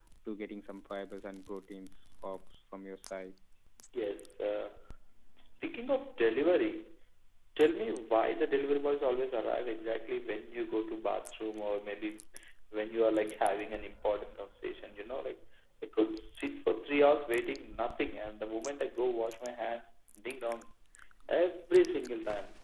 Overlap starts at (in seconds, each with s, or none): none